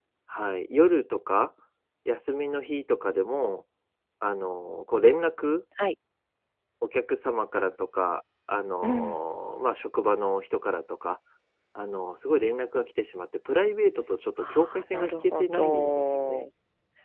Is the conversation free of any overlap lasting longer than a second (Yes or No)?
No